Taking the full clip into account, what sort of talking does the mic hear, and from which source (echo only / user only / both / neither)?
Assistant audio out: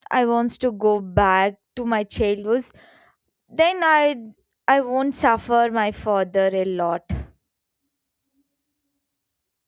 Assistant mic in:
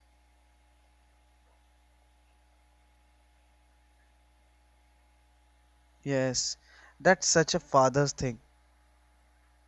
user only